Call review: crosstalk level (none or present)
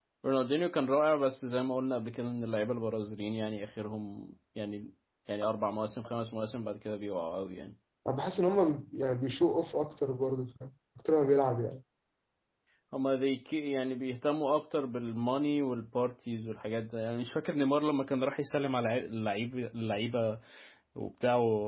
none